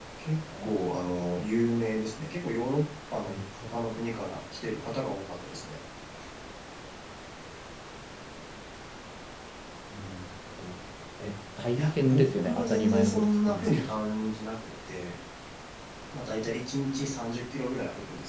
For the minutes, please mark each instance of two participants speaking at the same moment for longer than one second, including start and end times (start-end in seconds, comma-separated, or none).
11.8-13.9